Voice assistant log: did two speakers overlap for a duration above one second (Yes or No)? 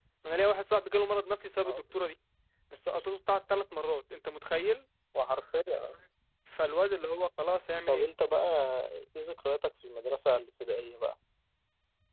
No